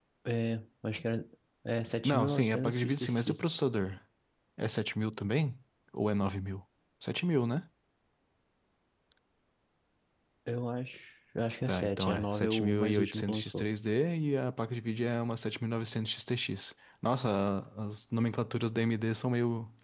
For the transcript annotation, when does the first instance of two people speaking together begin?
2 s

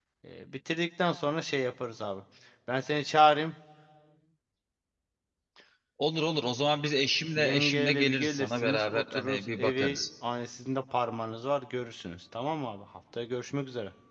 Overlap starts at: 7 s

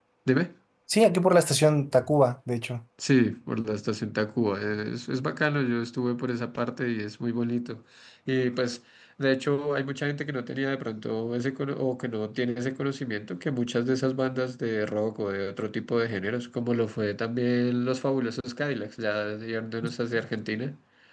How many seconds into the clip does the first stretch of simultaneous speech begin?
none

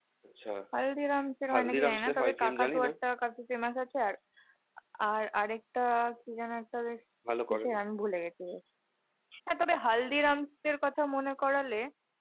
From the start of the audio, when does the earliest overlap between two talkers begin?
2 s

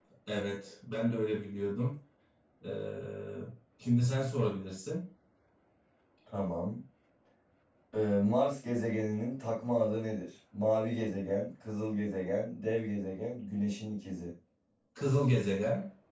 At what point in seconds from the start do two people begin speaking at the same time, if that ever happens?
none

